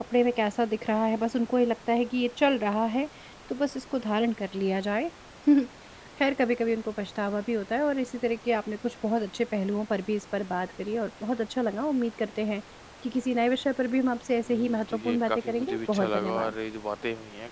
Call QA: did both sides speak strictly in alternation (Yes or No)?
No